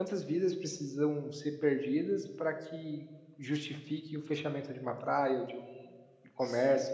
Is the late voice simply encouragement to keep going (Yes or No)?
No